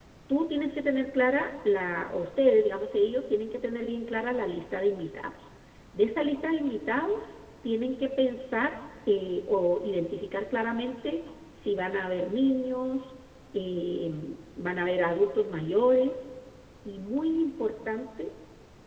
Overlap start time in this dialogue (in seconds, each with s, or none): none